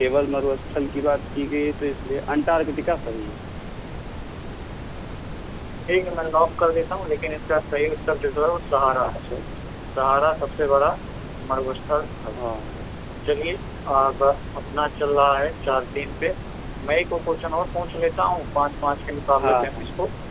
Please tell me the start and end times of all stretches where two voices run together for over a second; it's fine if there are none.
none

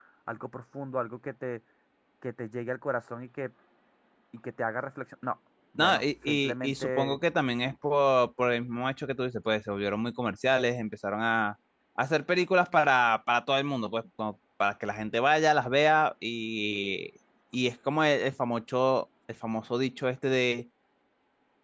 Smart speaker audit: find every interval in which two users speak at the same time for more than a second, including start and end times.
5.8-7.2

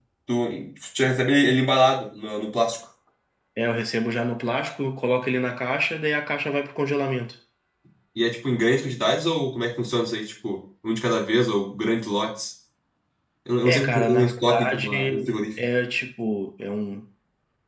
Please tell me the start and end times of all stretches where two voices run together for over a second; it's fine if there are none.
13.6-15.1

